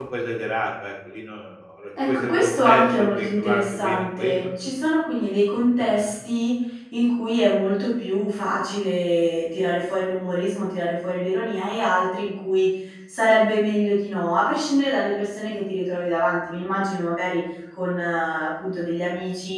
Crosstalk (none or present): present